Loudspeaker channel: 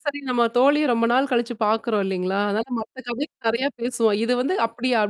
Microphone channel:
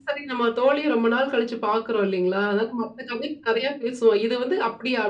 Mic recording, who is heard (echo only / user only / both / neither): echo only